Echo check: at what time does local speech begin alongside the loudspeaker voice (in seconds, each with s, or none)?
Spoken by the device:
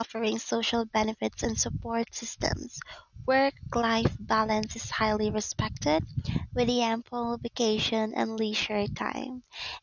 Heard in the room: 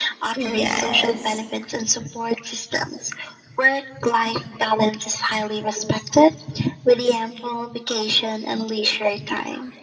0.3 s